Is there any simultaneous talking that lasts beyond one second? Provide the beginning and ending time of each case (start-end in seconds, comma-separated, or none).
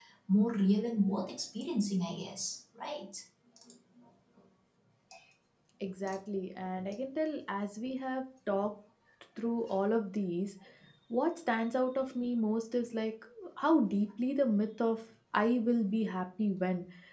none